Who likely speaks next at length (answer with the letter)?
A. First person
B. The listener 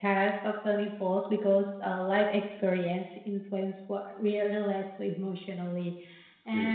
A